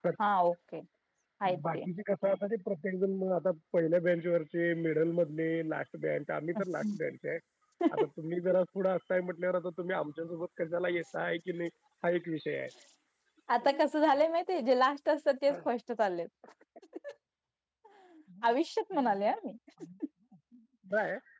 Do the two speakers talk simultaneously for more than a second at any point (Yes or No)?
No